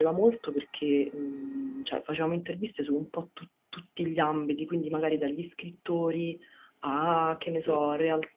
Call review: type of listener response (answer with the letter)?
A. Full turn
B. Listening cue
B